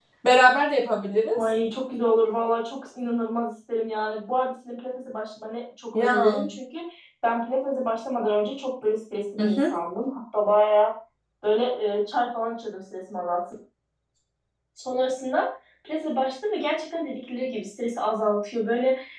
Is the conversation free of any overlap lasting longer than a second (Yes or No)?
Yes